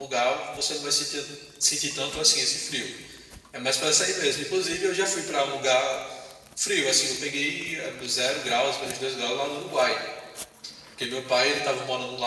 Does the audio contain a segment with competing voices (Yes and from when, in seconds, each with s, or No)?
No